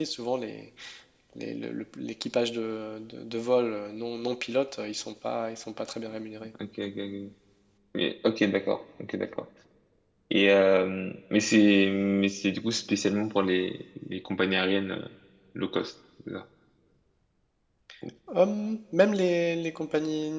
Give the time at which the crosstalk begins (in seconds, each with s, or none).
none